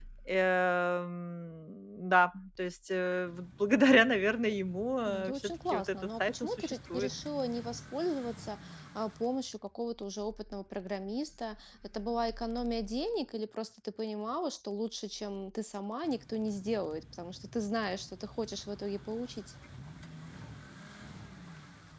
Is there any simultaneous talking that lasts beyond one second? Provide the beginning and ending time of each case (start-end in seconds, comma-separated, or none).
5.1-7.1